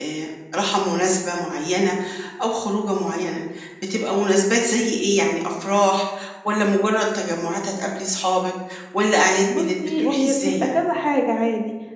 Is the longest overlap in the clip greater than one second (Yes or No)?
Yes